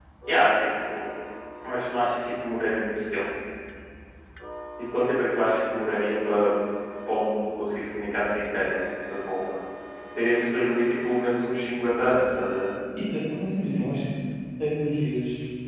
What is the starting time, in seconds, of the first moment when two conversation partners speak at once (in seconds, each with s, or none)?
none